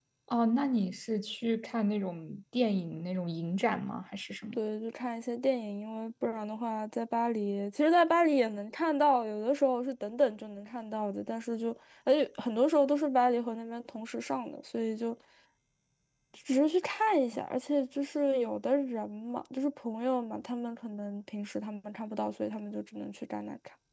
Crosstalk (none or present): none